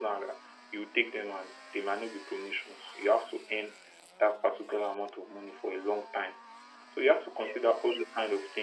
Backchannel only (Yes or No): Yes